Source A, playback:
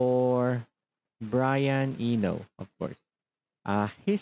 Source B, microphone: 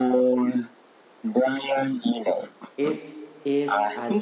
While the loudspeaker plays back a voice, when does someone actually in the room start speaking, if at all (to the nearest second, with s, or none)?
3 s